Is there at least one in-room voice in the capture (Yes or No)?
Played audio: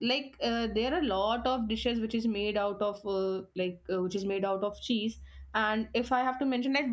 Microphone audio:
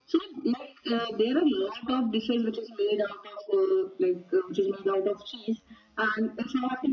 No